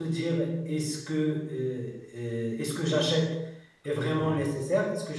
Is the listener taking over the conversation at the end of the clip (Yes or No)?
No